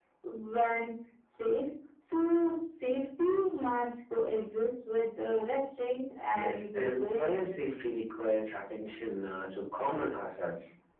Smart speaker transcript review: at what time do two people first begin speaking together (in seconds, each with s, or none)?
6.3 s